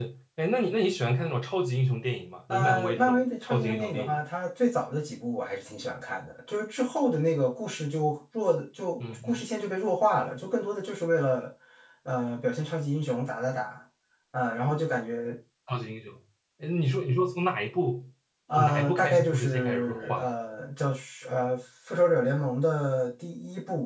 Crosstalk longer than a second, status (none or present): present